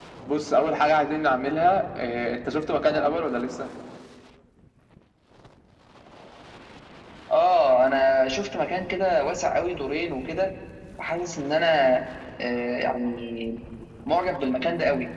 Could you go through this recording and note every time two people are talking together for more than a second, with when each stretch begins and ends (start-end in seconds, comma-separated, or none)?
none